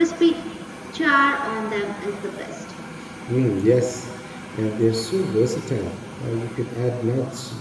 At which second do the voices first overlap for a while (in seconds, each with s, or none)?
none